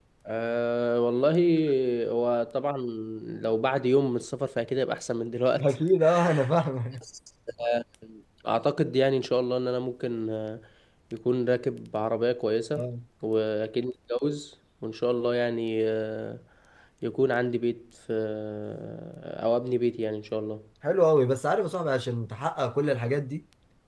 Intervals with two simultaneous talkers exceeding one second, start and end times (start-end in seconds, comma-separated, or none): none